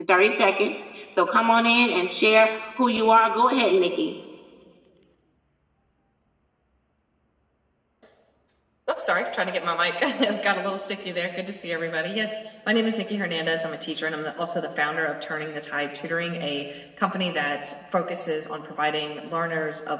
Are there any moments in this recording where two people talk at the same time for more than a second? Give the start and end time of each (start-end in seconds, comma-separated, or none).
none